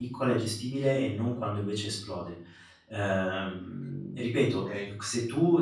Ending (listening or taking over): listening